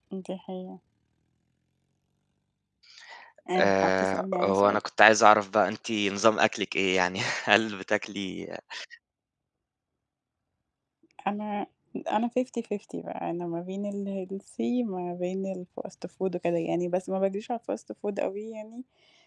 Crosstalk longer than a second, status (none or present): present